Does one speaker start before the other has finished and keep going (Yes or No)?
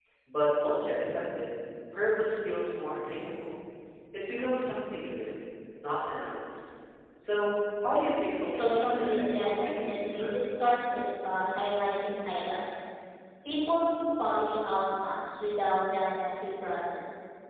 Yes